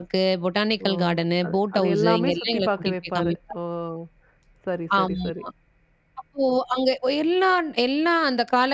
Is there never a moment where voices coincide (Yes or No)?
No